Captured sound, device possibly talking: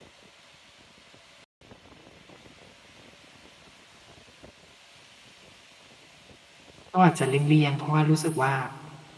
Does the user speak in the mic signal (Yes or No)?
Yes